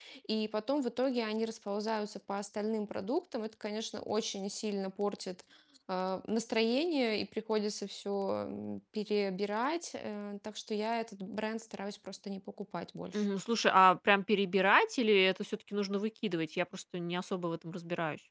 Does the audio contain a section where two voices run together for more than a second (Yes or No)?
No